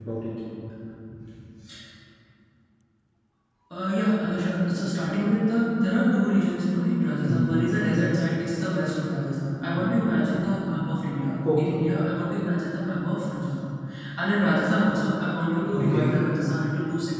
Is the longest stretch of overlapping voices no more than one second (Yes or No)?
Yes